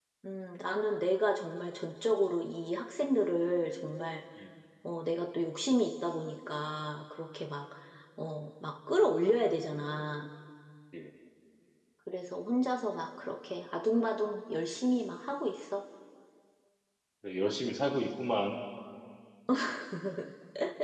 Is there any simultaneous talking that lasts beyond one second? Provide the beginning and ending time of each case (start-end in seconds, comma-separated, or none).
none